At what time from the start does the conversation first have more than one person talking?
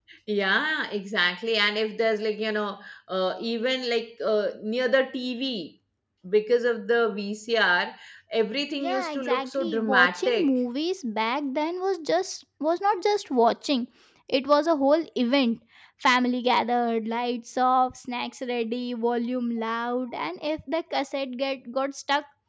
8.8 s

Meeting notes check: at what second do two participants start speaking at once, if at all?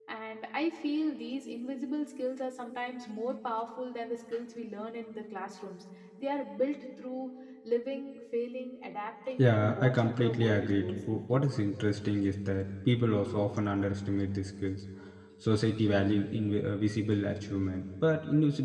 9.4 s

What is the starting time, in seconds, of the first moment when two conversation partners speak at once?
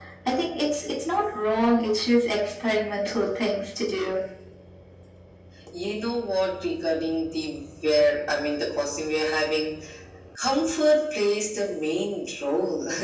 none

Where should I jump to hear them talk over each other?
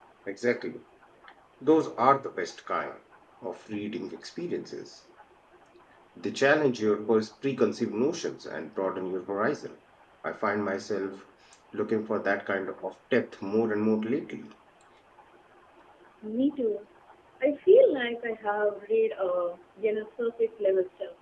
none

